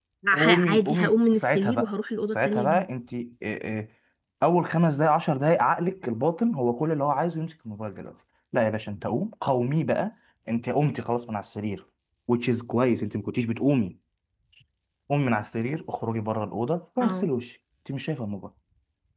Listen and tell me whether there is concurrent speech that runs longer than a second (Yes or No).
Yes